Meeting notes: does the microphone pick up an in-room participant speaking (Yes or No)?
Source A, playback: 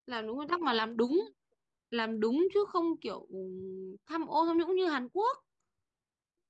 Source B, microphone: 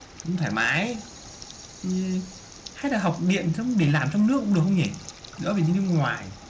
Yes